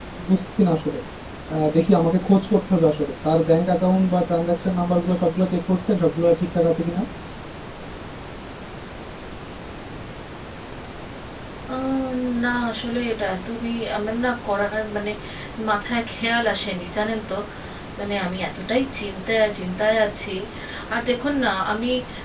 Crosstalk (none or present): none